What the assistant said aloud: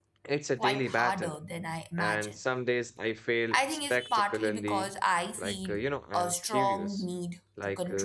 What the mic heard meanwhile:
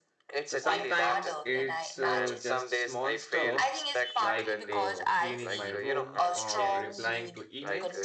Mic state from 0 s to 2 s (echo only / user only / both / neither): both